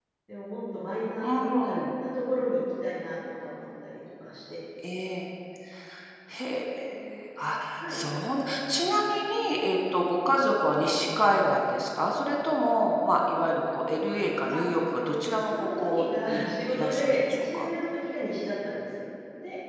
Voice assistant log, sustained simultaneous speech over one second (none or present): present